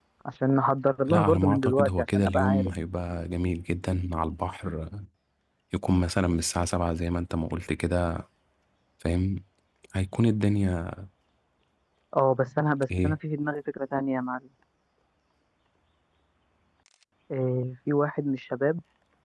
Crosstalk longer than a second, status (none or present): present